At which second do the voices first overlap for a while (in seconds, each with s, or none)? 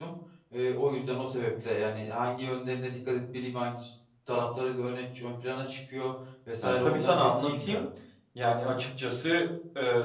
6.6 s